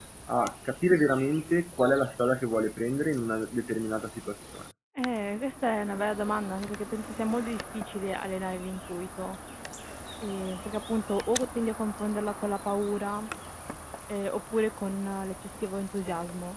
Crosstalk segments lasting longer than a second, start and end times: none

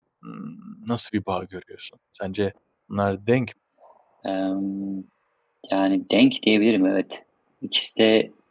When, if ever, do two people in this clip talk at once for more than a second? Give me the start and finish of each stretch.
none

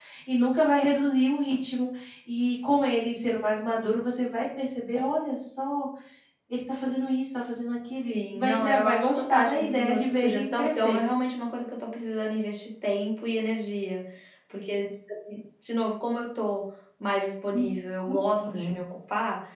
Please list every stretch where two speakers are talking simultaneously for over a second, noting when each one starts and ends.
8.1-11.0

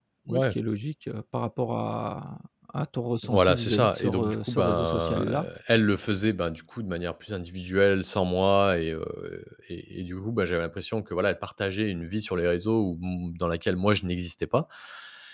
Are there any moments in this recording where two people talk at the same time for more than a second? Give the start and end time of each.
3.3-5.5

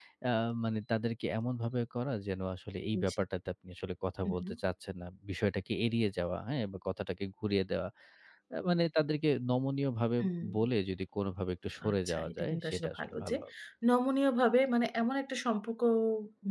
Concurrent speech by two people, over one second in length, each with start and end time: 11.9-13.4

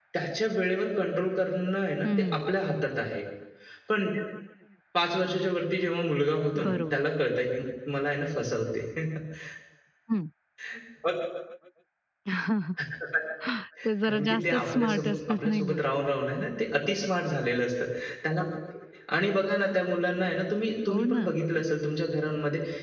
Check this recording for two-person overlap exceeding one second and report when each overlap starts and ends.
14.1-15.8

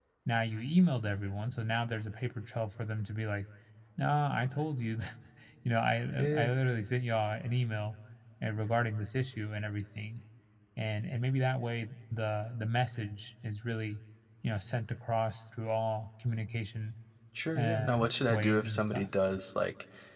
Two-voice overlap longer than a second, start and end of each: 17.6-19.1

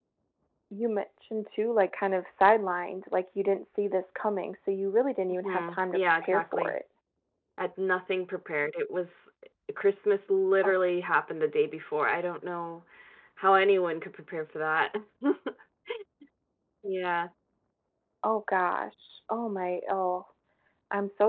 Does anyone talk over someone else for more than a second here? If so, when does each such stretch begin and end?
5.4-6.8

